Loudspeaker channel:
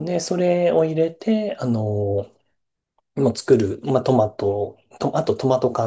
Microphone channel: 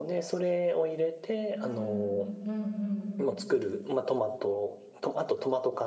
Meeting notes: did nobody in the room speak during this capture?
No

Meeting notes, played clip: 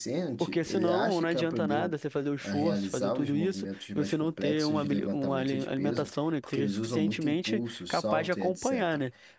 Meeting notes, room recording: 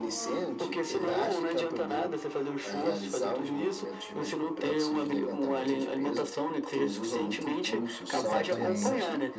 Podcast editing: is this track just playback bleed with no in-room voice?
No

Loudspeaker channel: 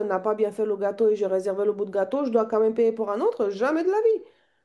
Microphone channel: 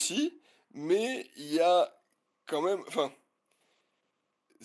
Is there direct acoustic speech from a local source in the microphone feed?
Yes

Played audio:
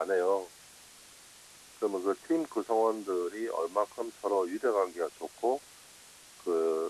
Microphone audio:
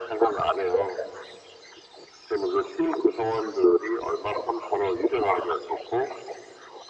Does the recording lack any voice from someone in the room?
Yes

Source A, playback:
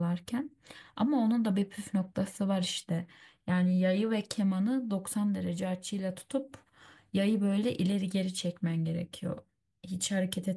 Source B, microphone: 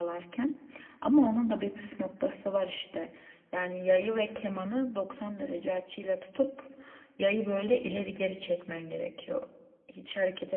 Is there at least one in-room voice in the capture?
No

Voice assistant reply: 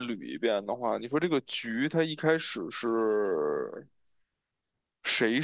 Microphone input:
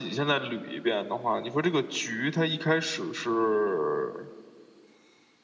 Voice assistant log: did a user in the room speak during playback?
No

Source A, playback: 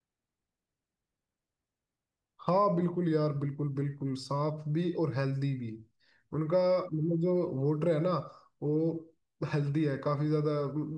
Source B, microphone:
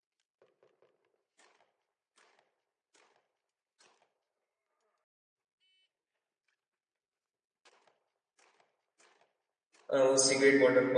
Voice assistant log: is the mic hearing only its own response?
No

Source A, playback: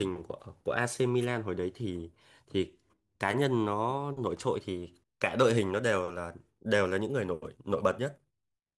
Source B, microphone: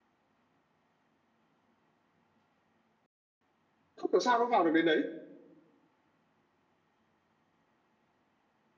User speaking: Yes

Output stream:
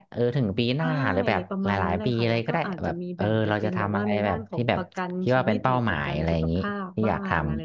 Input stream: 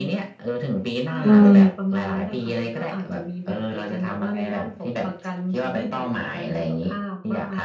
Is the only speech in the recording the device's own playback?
No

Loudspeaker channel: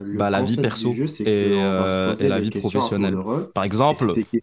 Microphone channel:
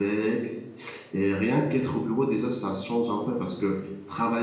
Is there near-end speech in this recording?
Yes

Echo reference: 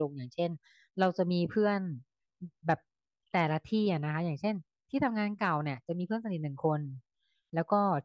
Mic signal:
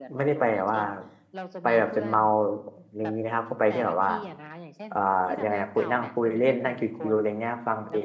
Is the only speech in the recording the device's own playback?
No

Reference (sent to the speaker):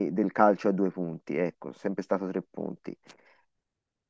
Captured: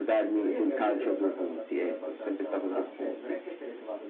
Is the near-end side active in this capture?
Yes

